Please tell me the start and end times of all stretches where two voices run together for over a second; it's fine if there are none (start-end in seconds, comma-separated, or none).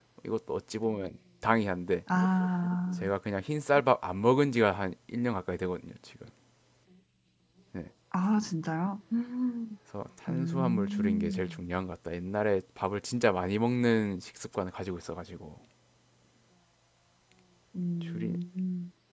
10.3-11.6